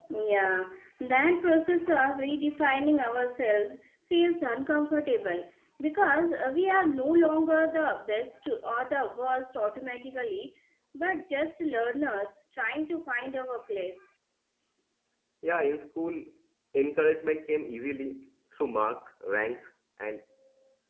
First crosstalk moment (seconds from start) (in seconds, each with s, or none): none